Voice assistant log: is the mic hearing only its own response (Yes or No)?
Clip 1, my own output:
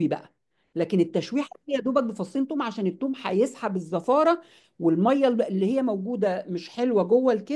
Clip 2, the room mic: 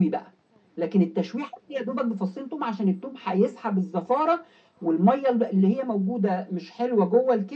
Yes